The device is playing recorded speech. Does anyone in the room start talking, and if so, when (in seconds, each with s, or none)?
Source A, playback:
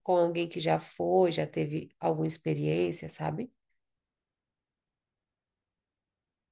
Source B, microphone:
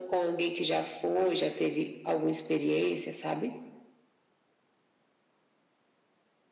none